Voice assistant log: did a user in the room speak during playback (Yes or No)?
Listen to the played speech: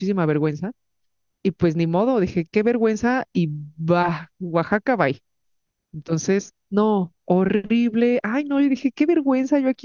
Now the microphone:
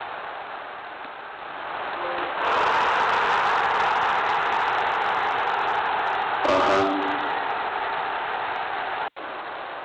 Yes